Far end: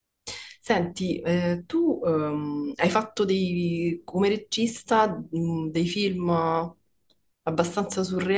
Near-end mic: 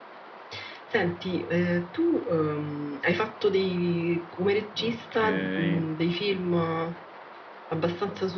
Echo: present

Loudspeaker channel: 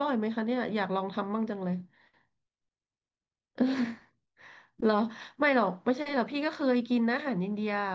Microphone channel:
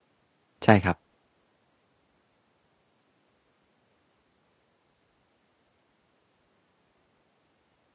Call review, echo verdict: none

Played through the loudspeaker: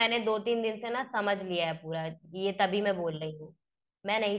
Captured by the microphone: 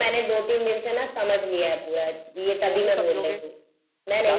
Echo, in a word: present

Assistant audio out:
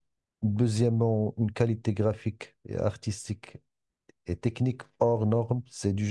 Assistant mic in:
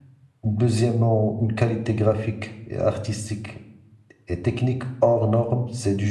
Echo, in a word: present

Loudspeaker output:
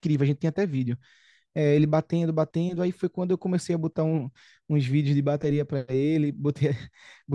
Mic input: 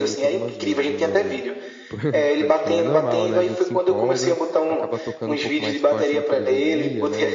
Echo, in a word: present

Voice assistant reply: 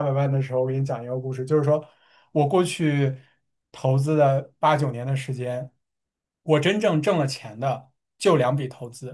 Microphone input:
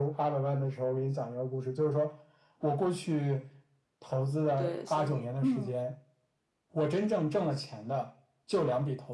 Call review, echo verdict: present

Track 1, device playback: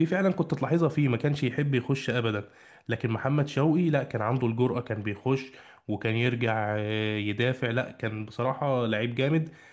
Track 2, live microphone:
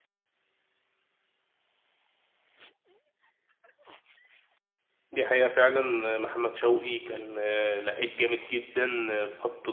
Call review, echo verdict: none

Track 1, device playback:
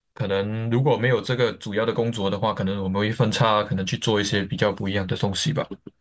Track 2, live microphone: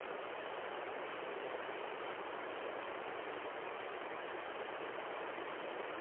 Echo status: none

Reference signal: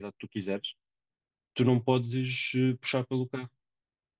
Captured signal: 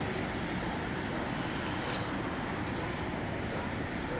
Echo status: none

